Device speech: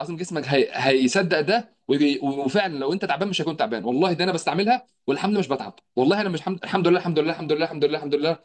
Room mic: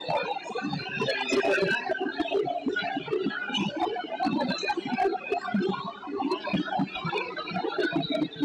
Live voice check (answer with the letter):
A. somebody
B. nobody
B